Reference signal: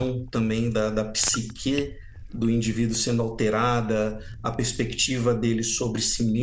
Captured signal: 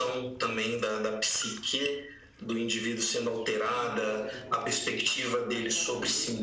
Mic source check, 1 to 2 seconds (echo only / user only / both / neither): echo only